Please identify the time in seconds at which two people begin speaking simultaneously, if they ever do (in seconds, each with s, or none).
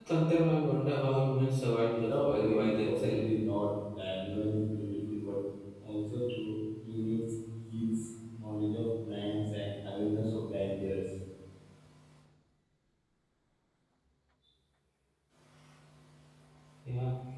1.9 s